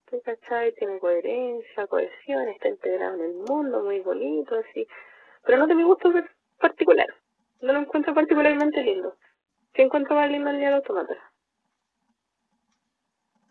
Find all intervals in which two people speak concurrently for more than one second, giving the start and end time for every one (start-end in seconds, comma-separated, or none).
none